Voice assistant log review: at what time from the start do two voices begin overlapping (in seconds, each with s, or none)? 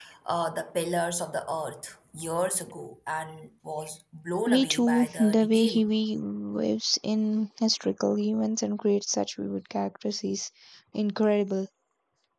4.5 s